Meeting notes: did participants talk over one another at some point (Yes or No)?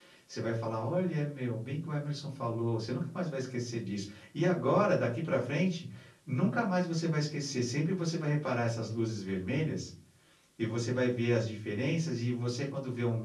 No